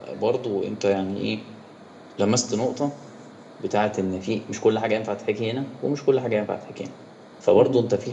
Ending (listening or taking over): listening